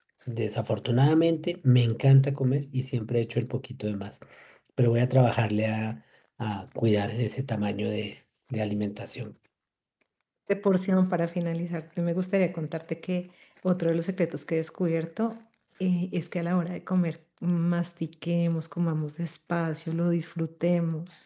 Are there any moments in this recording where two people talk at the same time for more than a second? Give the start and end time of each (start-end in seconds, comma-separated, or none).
none